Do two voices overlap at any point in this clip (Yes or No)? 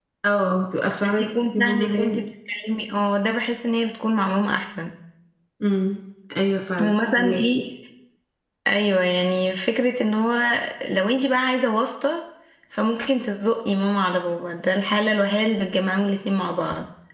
Yes